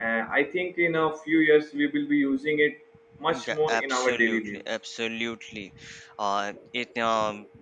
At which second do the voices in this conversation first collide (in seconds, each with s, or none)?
3.3 s